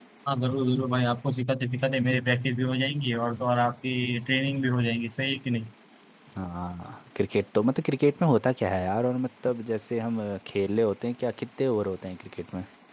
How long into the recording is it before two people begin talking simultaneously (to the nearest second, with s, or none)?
none